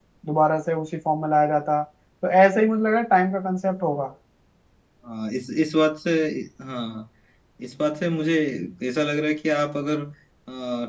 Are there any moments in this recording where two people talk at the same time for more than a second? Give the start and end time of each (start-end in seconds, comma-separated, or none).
none